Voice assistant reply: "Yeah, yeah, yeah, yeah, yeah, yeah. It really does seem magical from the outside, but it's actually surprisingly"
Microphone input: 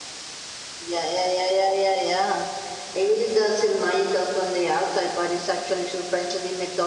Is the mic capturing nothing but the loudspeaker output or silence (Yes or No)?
Yes